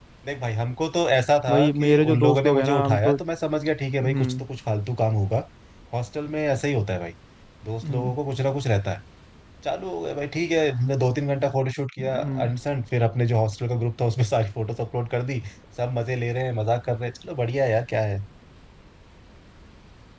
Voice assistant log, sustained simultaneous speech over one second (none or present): present